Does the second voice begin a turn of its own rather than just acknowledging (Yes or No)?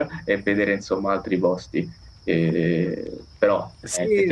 Yes